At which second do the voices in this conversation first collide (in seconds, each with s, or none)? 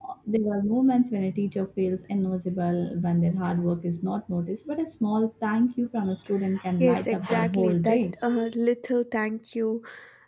6.8 s